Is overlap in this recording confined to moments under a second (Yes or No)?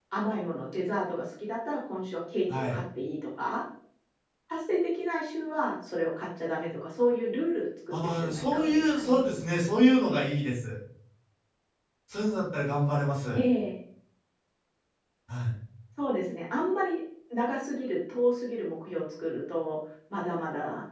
No